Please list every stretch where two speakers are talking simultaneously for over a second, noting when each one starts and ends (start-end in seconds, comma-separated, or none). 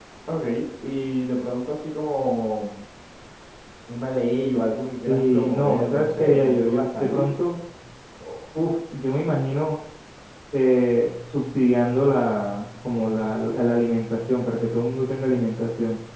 5.0-7.3